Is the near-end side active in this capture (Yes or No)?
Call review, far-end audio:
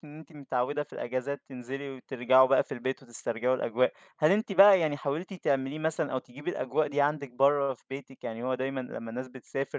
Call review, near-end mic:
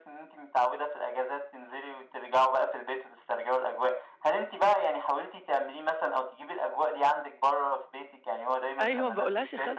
Yes